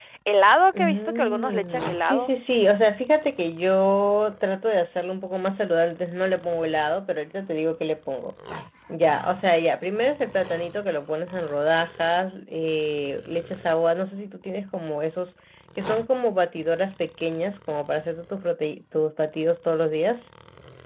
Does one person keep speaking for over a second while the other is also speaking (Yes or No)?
Yes